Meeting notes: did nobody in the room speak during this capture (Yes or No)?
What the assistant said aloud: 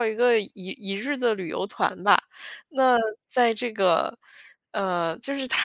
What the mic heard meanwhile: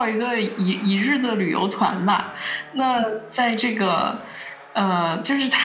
Yes